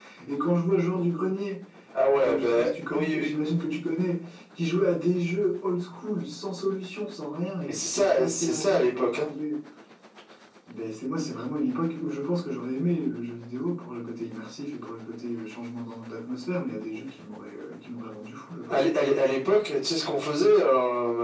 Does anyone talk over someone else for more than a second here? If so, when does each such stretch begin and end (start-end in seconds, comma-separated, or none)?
2.2-3.5, 7.6-9.3